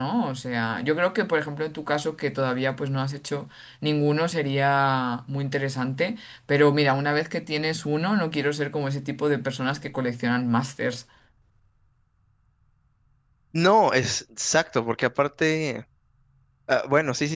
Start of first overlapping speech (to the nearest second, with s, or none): none